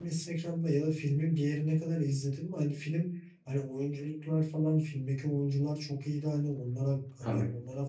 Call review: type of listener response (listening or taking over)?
listening